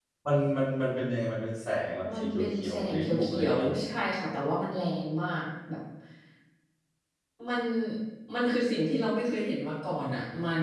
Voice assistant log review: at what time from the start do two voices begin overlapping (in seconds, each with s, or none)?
2.0 s